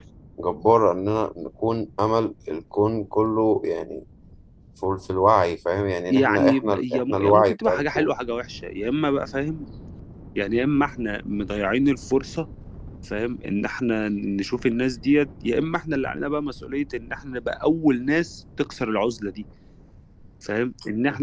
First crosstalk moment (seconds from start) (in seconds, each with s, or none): 6.1 s